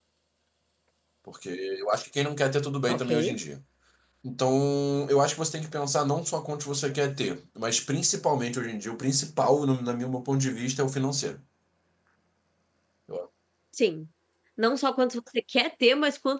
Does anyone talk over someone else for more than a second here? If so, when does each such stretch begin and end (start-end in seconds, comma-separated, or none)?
none